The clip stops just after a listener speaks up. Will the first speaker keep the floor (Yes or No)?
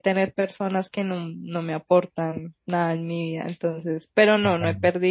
Yes